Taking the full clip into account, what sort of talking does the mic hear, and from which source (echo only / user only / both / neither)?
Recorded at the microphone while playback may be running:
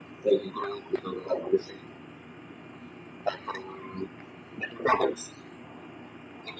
echo only